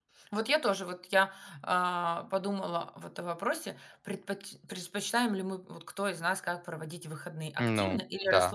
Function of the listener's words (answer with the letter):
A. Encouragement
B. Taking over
A